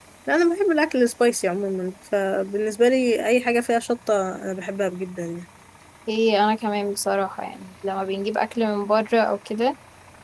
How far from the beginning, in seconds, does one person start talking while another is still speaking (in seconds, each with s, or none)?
none